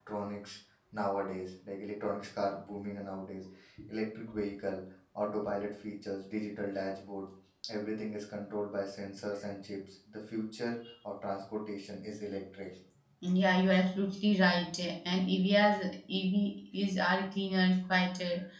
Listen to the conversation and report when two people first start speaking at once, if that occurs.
none

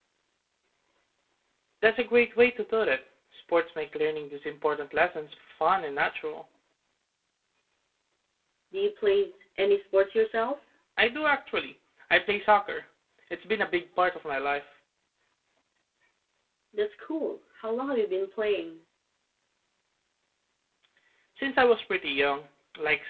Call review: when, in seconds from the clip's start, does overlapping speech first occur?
none

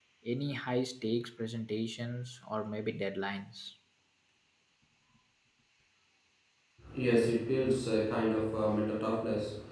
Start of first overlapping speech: none

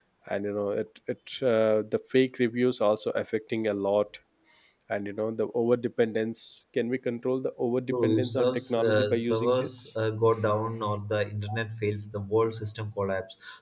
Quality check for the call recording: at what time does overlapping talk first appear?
7.9 s

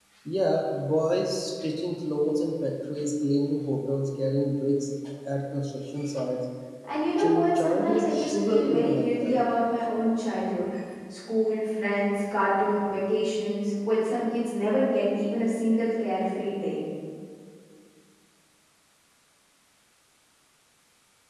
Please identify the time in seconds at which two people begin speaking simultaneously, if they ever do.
7.2 s

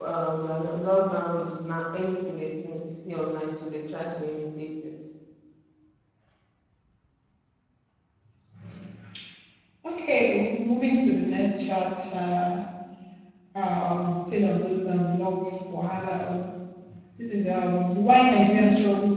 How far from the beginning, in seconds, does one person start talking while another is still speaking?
none

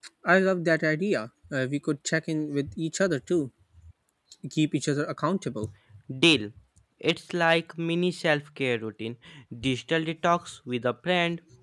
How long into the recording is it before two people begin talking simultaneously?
none

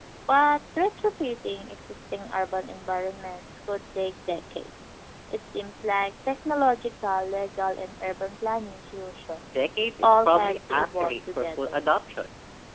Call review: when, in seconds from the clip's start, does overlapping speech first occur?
10.0 s

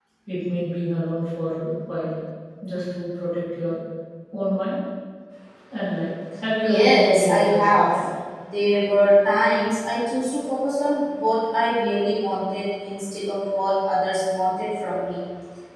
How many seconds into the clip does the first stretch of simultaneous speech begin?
6.6 s

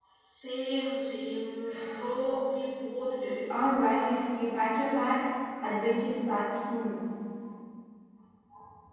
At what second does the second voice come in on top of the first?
none

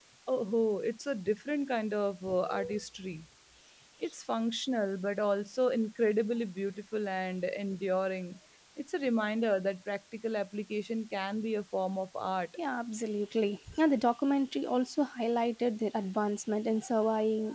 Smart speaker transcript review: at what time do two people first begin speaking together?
none

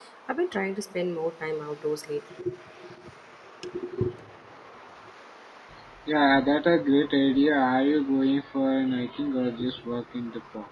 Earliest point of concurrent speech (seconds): none

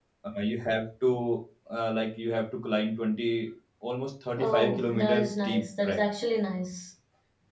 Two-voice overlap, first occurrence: 4.4 s

